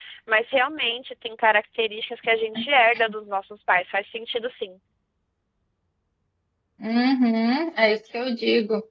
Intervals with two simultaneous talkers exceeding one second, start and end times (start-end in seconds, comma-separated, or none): none